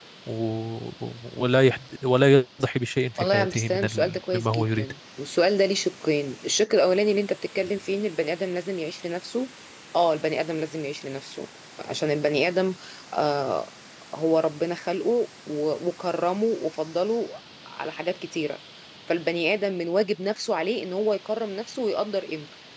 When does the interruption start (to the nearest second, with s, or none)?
3 s